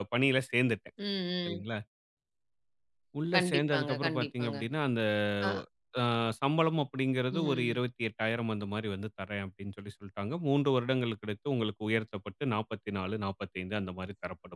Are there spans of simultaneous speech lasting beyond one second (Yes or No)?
Yes